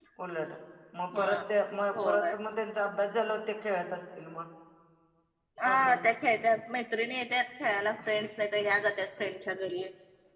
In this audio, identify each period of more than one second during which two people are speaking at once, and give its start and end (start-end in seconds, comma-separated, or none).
none